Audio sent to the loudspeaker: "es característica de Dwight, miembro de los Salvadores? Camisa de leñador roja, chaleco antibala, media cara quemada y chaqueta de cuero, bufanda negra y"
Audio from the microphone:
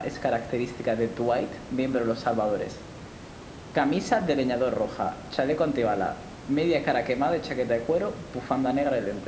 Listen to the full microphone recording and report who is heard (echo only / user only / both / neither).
echo only